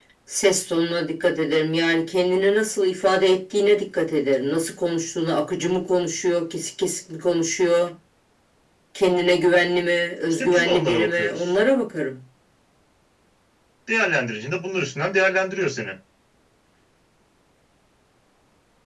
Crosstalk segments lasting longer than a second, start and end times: 10.3-11.5

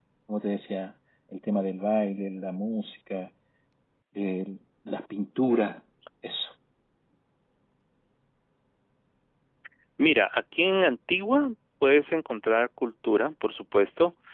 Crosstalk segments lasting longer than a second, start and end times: none

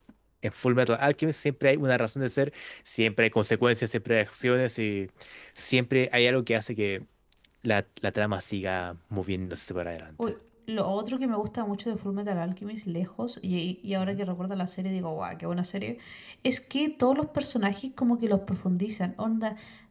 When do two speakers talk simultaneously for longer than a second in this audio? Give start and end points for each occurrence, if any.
none

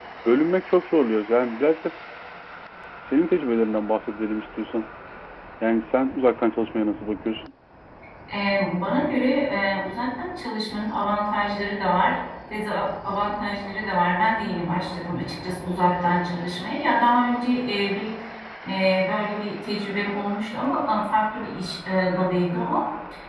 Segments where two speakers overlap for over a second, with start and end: none

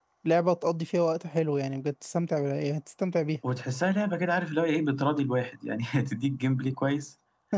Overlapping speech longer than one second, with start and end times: none

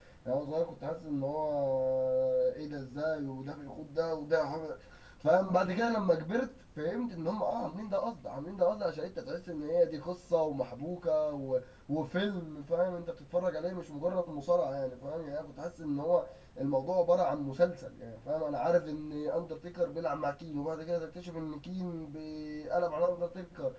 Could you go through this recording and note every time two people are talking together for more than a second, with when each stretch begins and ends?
none

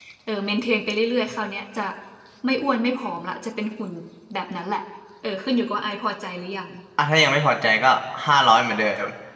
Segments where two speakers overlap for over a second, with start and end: none

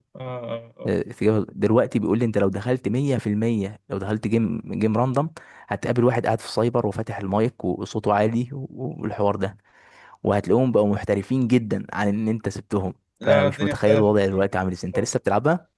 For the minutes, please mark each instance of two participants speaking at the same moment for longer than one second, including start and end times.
13.2-14.5

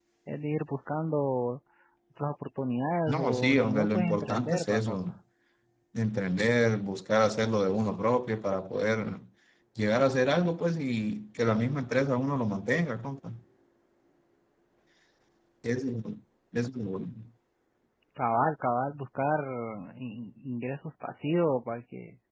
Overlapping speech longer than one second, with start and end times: 3.1-5.0

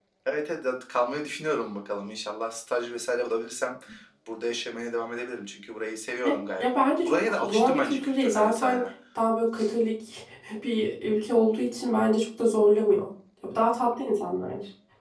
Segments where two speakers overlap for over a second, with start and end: 7.0-8.8

